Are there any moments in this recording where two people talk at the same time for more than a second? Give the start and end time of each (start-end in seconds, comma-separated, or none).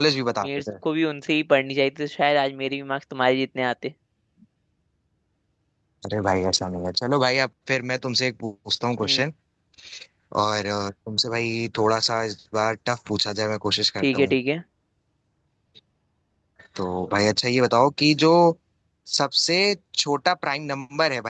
none